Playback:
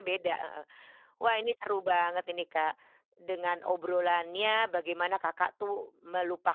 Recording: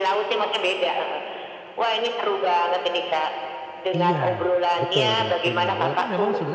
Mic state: both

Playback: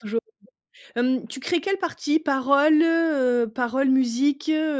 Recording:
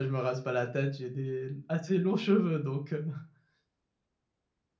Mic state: user only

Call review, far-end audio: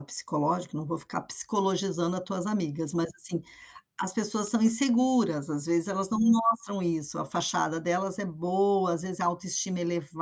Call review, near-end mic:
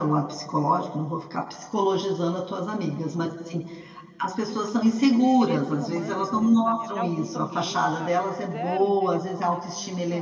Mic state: both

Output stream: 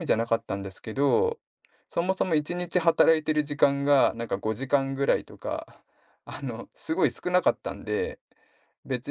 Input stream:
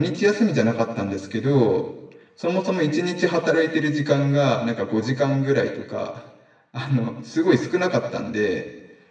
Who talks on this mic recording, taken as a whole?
echo only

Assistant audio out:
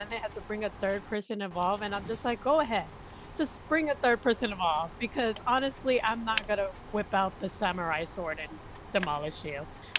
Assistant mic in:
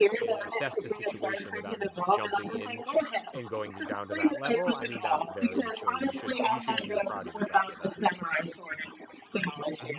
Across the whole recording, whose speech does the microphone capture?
both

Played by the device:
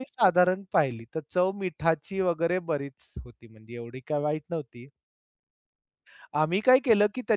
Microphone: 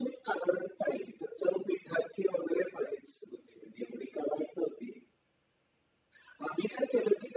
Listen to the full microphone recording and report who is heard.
echo only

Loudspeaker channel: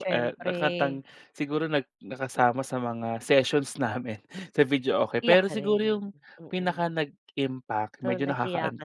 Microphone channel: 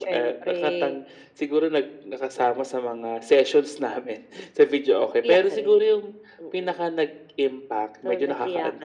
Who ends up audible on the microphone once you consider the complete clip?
echo only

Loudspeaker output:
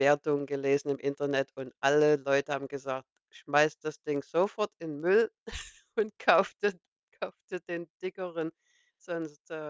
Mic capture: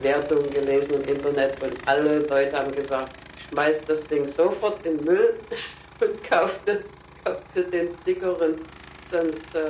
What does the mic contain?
echo only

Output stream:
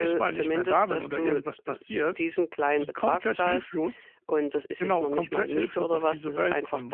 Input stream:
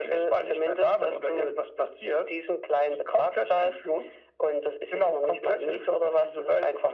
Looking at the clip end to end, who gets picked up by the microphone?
echo only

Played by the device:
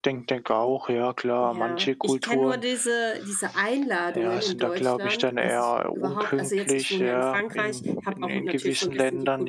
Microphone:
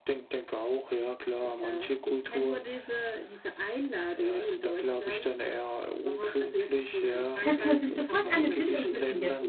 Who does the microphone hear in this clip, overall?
both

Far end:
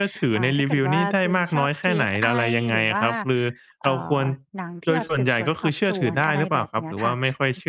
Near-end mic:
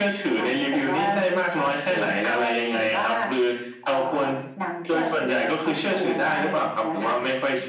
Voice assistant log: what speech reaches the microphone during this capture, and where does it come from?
echo only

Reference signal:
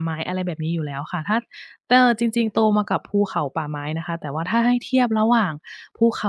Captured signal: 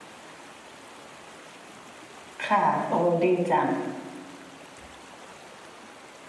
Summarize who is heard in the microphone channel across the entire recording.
user only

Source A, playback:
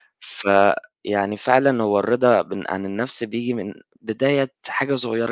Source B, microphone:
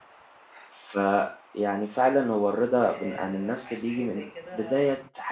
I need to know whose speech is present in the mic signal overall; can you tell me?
both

